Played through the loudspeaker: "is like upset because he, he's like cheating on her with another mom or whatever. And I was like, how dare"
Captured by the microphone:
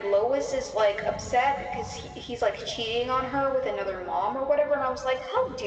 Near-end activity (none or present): none